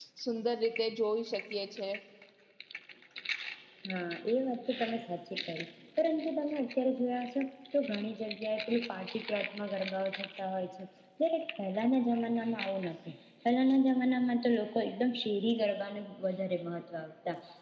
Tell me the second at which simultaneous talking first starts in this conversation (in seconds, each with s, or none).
none